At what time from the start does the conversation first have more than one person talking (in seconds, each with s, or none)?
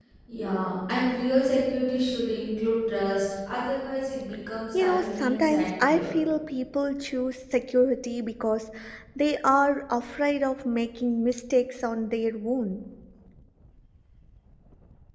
4.7 s